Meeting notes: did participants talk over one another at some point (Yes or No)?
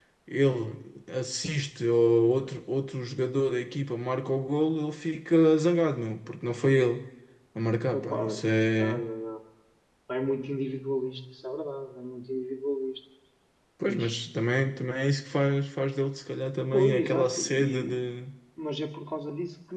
Yes